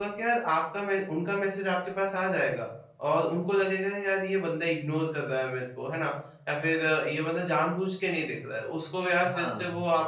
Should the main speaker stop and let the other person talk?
No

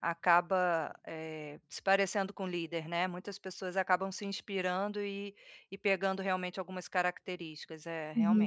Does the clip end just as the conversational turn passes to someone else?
Yes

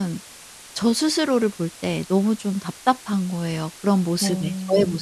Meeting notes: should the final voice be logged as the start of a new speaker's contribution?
Yes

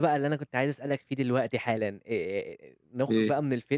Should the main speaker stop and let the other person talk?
No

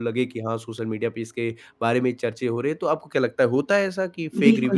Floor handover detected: Yes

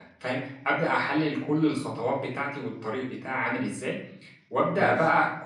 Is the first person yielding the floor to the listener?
No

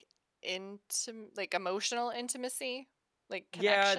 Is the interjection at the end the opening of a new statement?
Yes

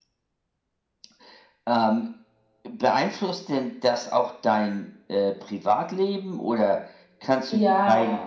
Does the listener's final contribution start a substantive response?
No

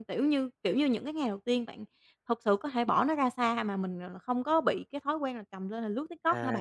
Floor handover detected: Yes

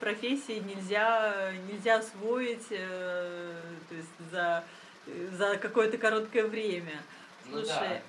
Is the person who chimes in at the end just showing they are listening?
Yes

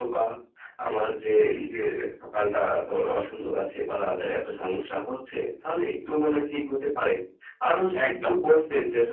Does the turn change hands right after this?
No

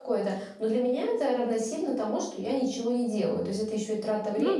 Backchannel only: Yes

